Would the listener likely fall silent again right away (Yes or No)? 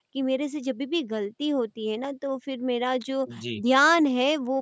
Yes